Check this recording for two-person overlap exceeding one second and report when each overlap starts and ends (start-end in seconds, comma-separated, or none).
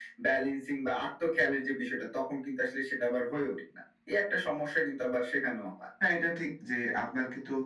none